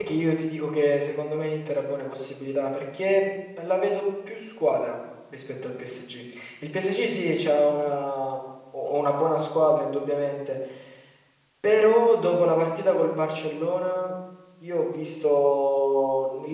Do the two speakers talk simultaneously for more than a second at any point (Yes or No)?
No